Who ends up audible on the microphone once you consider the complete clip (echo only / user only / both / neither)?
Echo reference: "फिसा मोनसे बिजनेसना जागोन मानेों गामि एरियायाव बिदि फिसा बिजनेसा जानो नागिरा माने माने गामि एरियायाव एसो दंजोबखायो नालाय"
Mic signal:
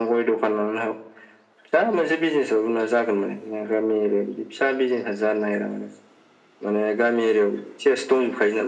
echo only